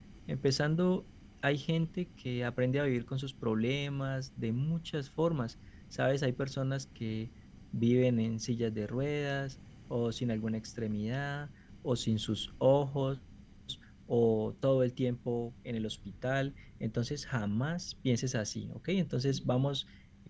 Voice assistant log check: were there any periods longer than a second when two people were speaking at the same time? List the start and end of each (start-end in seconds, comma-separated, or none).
none